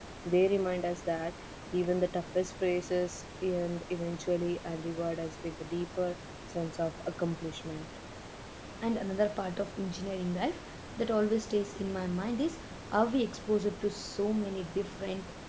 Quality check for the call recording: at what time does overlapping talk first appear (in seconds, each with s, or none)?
none